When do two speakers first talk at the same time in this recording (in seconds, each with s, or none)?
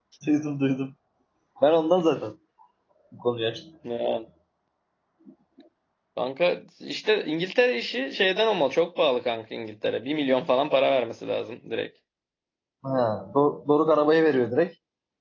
none